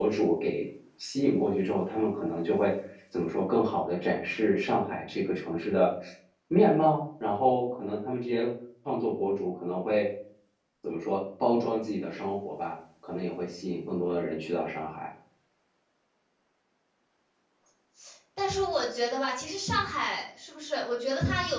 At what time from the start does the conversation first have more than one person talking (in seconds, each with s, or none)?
none